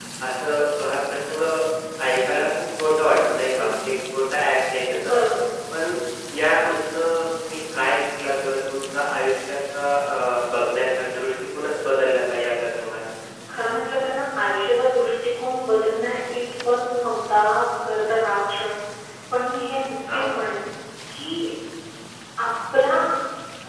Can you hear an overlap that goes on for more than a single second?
No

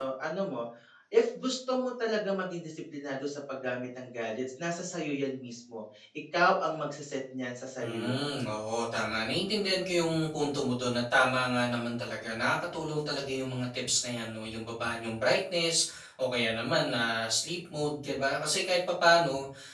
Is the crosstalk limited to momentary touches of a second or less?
Yes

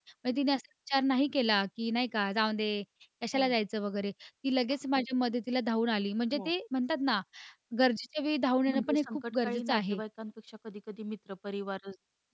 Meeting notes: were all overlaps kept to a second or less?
No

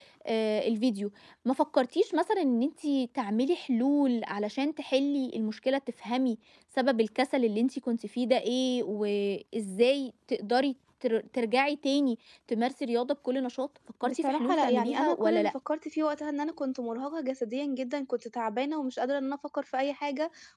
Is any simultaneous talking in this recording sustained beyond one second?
Yes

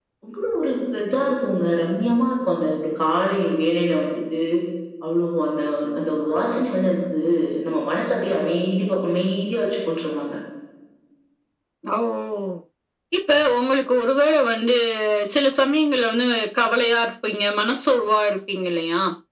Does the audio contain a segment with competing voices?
No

